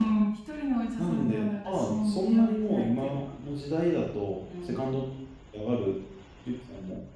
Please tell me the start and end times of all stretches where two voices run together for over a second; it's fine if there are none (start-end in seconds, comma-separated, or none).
1.0-3.1